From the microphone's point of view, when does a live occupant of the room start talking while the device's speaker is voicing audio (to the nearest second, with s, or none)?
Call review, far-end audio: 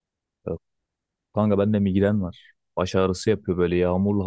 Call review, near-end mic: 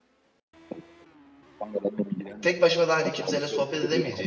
2 s